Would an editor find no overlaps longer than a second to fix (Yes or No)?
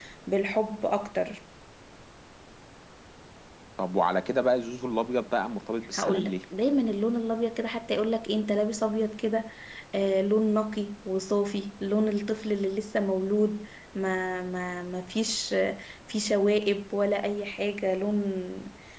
Yes